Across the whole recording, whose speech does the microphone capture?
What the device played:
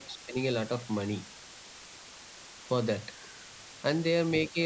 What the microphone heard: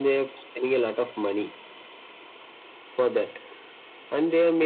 echo only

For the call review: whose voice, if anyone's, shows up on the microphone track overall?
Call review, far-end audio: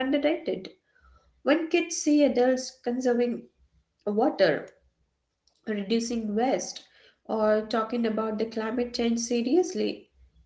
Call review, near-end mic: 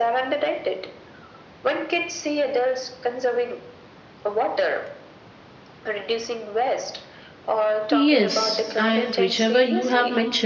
both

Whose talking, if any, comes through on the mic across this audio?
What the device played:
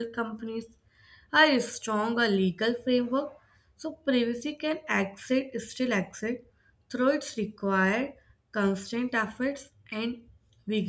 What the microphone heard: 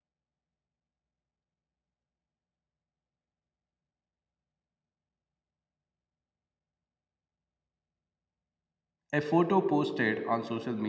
user only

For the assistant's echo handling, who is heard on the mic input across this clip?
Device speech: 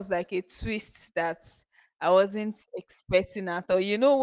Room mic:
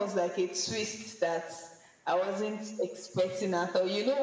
echo only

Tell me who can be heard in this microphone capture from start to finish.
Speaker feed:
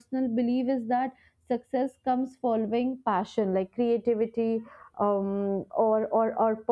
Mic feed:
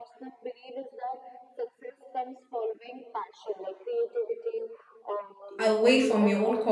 both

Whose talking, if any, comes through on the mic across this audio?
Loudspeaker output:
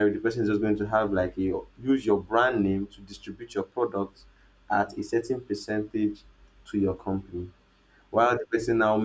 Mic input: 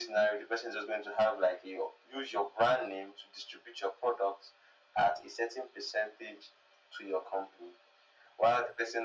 echo only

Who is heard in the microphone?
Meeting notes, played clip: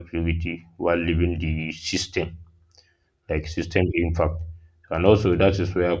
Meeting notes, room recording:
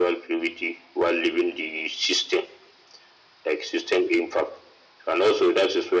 echo only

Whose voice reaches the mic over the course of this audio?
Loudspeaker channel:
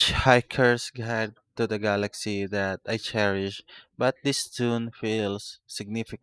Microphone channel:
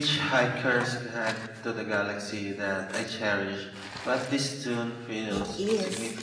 both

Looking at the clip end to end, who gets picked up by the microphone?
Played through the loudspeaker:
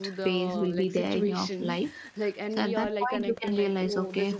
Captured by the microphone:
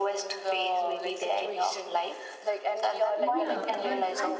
both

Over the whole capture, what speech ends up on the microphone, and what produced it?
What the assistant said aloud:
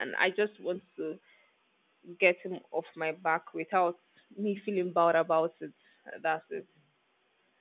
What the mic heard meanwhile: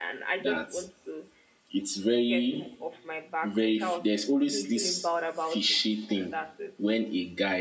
both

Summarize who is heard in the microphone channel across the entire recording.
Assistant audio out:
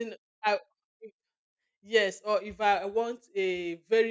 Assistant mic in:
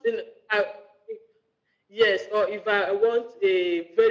echo only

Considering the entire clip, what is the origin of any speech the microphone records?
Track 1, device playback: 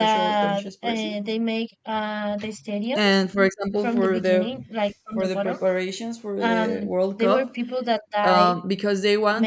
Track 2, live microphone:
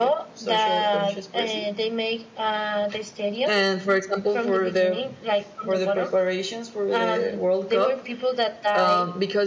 echo only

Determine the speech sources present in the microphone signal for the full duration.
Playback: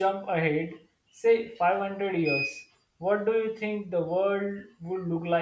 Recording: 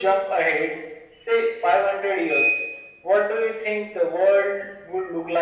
echo only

